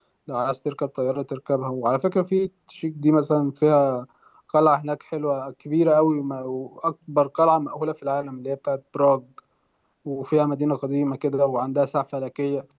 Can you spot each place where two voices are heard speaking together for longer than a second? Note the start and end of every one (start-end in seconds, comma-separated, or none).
none